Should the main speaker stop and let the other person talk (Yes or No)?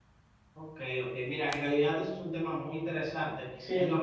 No